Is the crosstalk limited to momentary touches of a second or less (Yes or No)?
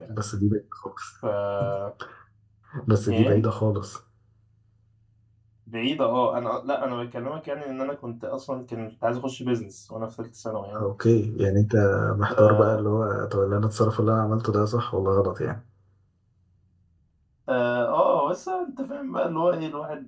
Yes